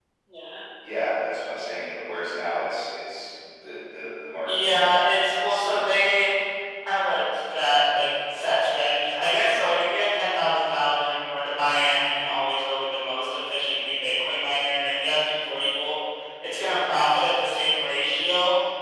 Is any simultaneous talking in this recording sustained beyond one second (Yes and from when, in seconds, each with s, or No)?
No